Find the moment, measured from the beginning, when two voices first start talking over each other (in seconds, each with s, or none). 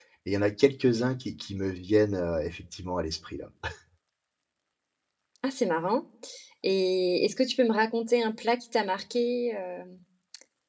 none